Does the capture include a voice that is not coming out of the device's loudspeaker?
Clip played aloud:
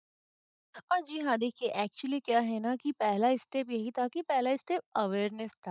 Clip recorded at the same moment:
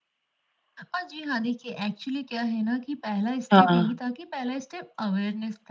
Yes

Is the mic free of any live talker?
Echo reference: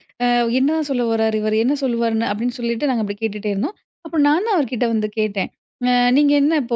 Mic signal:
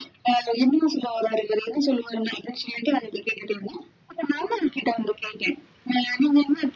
Yes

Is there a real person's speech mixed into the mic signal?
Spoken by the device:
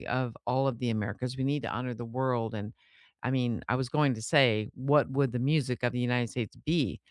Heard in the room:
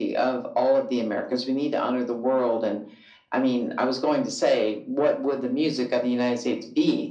No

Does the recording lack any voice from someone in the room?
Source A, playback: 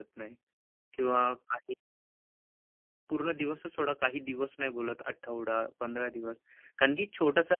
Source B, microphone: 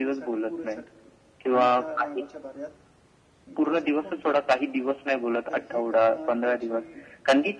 No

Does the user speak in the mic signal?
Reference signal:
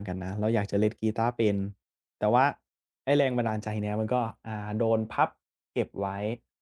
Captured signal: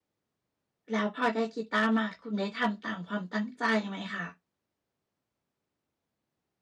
Yes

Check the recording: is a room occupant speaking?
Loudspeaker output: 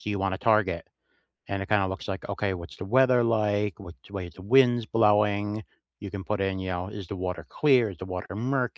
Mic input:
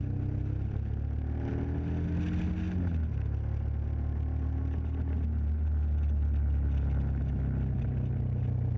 No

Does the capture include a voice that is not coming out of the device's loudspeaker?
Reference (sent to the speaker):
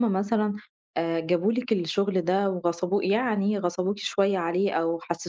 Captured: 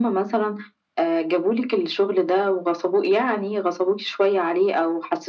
No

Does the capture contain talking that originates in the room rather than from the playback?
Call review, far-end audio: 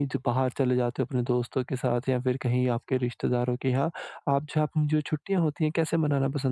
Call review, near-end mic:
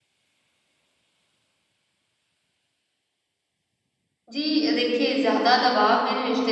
Yes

